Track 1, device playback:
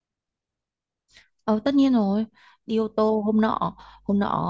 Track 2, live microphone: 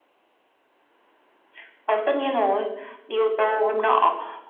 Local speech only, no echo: none

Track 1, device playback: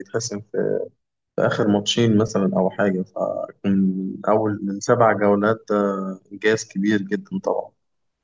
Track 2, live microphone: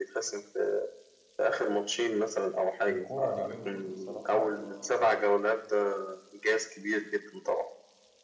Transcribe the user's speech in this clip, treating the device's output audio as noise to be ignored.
الكورة اليومين دول بصراحة ال-

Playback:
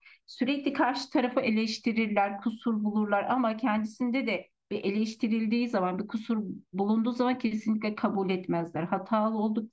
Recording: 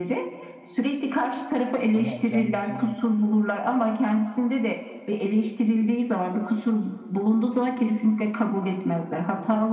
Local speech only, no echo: ama kendisinin

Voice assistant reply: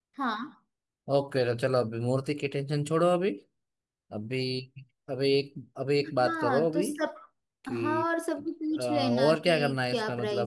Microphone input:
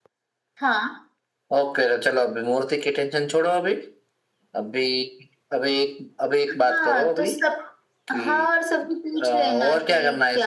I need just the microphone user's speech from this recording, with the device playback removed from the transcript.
none

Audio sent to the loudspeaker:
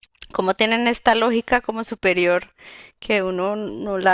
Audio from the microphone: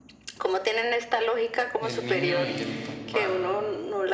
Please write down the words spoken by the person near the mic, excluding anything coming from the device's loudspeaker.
el niño y el papá.

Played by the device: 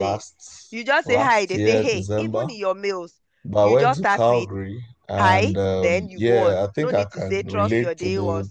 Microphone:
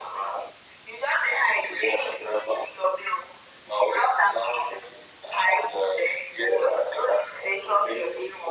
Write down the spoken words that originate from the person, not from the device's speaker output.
none

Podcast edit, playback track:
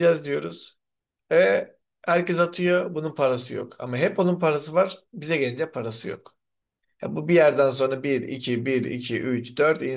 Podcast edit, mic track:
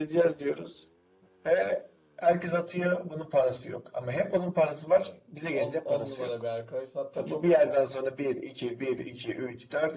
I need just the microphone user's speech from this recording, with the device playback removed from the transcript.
Yani 10 10 numara bir arkadaşsın. Hatta çok

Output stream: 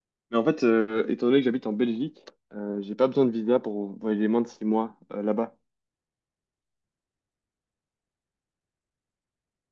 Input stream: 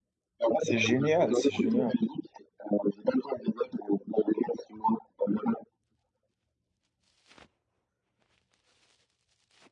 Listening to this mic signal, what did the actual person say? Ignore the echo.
C'est génial, c'est génial.

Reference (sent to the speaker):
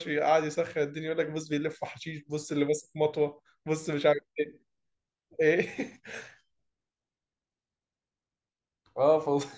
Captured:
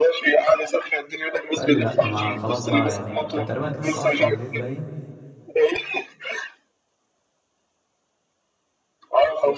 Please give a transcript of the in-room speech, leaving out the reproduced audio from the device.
فقال لي لا ما خلاص بقى يعني كان تقريبا كانت الساعه 10 بالليل باين

